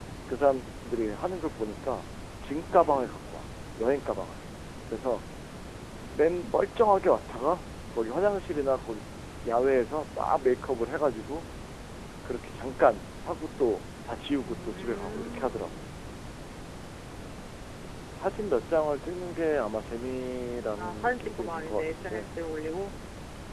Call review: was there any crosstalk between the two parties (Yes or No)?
Yes